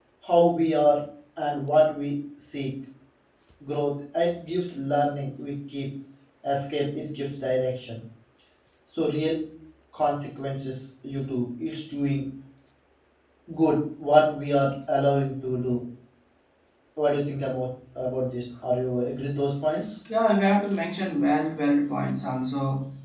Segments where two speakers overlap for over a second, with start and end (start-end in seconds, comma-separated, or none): none